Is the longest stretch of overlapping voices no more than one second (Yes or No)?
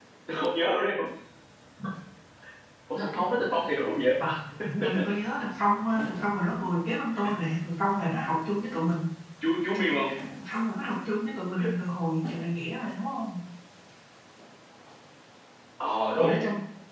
Yes